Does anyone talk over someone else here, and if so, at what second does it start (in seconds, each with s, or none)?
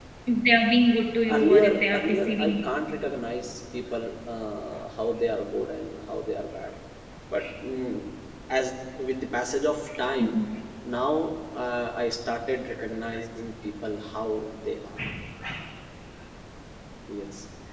1.3 s